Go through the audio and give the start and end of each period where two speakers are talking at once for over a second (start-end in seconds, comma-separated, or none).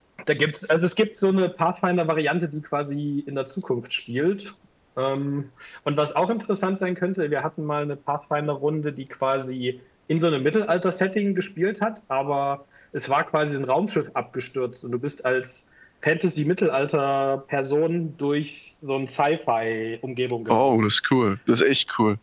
none